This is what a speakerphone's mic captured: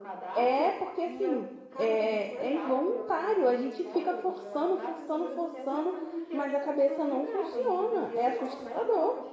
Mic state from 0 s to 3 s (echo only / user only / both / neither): both